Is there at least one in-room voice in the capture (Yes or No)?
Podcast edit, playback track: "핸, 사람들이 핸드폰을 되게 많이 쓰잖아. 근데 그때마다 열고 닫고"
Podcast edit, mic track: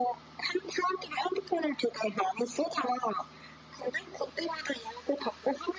No